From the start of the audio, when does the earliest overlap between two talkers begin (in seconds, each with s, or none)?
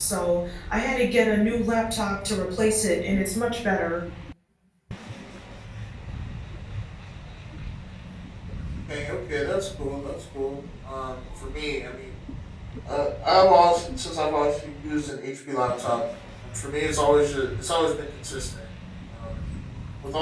none